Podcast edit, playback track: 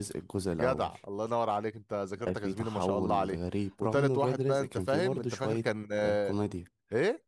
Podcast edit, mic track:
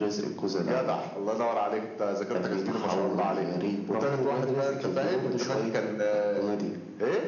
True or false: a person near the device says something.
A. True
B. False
B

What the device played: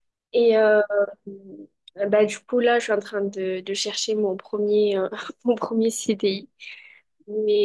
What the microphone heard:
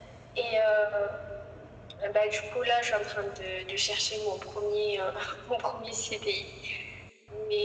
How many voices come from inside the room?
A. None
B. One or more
A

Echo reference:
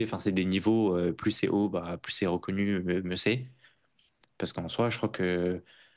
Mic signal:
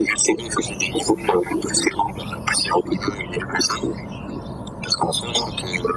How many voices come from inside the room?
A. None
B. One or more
A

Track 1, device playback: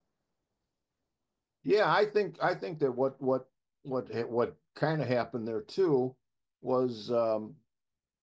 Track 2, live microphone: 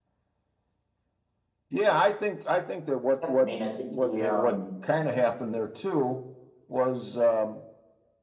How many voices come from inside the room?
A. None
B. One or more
B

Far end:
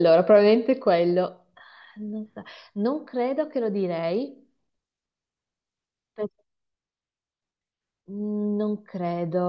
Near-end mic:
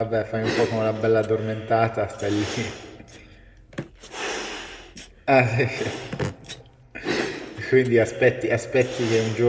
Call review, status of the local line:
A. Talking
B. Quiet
A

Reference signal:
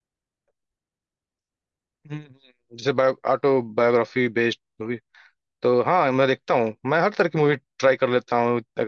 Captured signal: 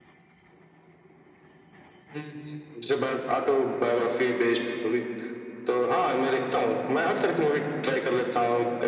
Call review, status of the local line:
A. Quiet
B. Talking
A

